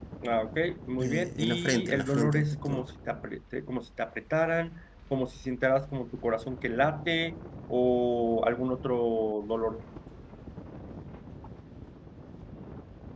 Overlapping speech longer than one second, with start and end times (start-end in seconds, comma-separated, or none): 1.0-2.8